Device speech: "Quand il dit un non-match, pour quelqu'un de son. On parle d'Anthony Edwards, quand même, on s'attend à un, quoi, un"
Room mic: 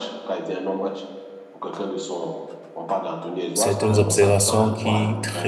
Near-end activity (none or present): present